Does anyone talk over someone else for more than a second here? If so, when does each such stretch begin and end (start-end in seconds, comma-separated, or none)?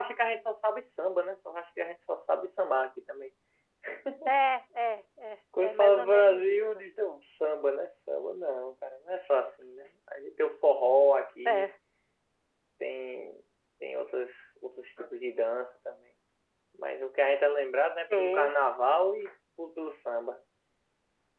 5.6-6.8